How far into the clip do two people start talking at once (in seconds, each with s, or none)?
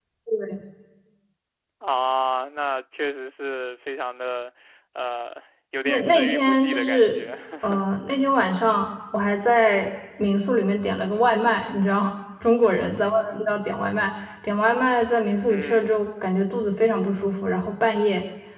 5.8 s